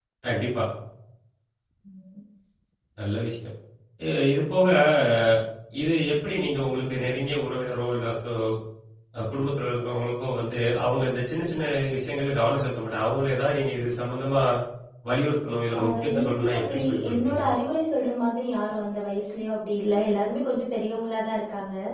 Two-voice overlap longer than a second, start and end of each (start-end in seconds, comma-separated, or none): 15.8-17.4